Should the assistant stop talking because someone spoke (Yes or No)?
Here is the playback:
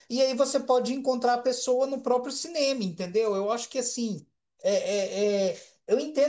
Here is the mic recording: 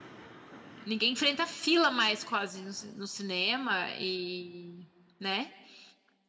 Yes